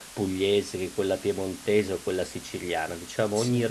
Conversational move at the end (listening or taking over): listening